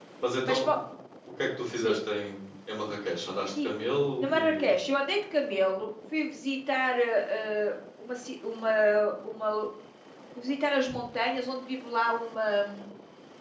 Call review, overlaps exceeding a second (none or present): none